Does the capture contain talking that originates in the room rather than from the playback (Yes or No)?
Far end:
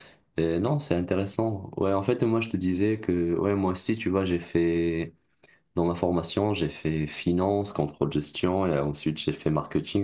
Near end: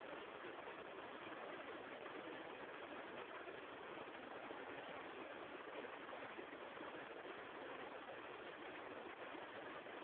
No